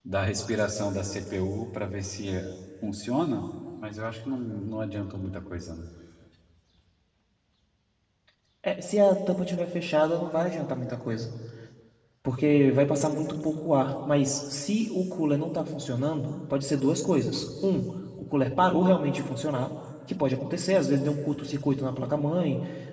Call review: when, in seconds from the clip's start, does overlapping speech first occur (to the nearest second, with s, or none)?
none